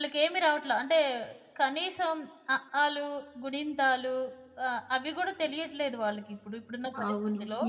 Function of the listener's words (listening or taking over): taking over